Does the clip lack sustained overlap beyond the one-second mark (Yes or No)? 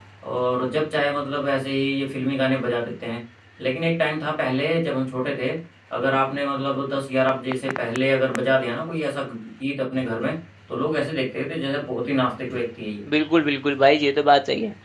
Yes